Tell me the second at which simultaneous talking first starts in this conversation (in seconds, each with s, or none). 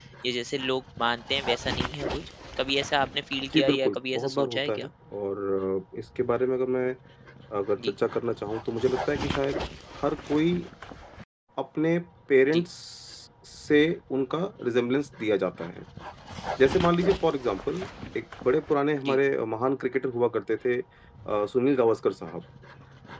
3.5 s